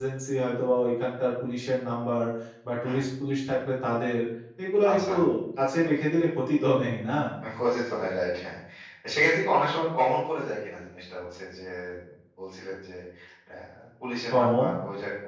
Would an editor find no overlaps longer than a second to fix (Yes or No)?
Yes